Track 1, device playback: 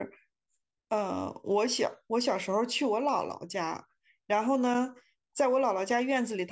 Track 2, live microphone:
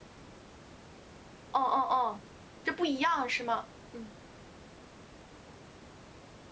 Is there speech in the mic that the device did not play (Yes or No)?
Yes